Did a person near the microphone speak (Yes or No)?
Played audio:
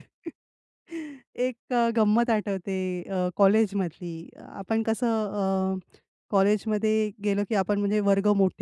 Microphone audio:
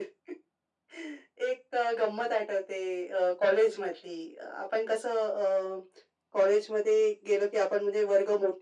No